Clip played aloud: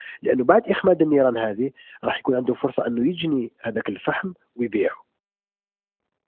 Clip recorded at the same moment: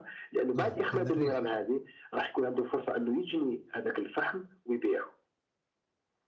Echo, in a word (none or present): present